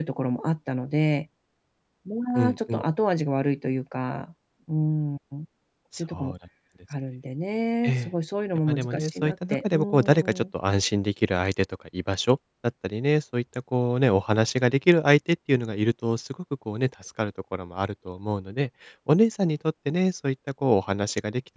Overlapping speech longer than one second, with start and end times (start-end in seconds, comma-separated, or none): 8.7-10.4